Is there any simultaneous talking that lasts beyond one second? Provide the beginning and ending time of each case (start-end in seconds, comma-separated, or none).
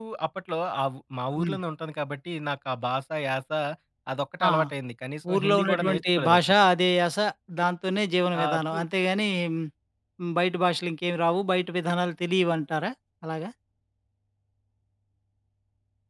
5.3-6.5